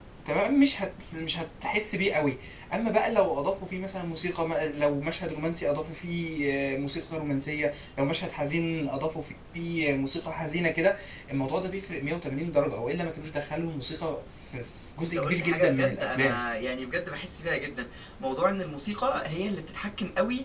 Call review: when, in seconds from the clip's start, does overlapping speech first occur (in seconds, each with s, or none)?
15.0 s